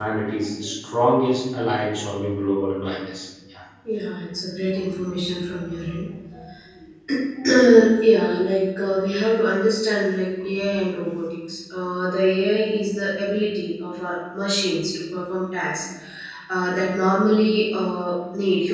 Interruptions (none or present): none